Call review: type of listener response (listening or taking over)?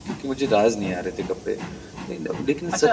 taking over